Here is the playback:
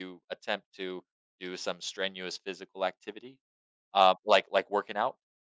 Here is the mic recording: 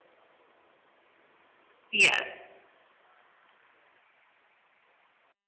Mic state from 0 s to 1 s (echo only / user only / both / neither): neither